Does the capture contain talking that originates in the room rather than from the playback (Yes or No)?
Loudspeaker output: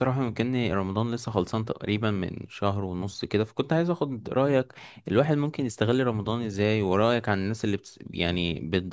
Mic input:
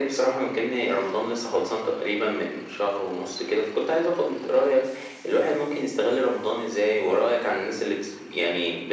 No